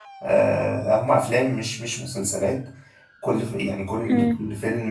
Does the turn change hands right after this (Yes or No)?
No